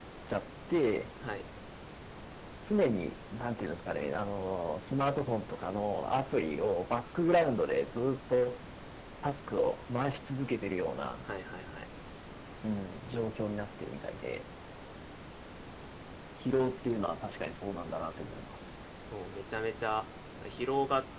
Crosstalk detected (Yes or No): No